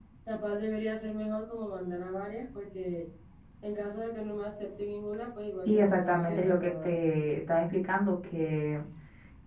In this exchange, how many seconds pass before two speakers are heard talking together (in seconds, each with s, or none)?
5.7 s